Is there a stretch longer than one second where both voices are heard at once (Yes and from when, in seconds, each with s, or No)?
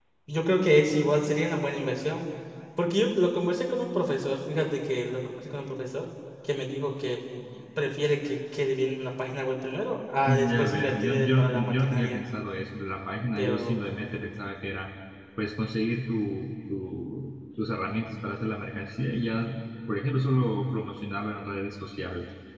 Yes, from 10.3 s